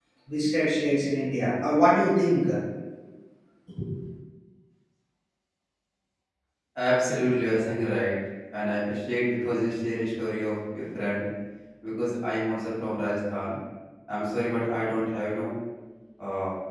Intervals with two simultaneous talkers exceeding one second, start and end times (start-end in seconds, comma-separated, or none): none